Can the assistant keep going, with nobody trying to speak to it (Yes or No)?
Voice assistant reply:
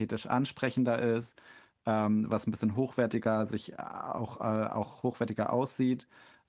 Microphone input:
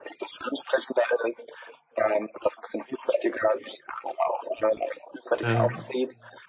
No